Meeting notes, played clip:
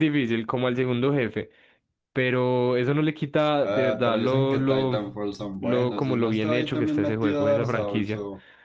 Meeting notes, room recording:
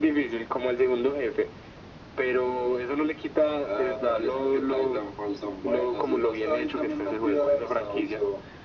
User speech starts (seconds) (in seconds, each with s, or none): none